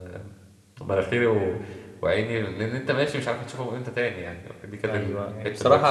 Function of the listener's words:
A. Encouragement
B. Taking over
B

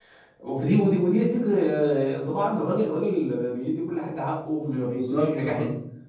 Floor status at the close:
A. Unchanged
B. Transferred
A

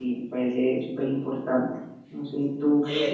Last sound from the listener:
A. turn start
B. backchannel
B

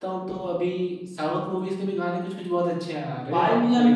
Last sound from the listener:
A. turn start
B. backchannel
A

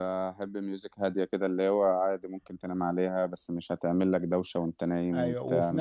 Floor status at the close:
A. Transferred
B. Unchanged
A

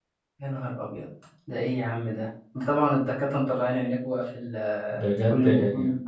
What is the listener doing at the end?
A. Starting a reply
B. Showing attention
A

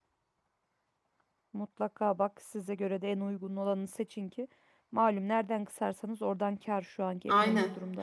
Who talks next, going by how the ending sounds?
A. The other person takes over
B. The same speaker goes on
A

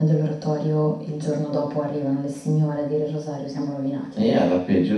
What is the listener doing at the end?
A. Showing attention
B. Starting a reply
B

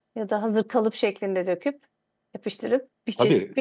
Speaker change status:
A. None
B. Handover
B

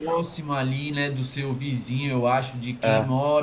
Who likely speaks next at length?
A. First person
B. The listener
A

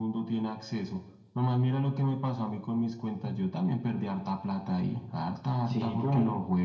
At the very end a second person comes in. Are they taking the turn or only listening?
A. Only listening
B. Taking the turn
A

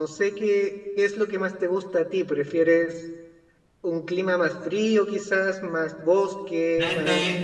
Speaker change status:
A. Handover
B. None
A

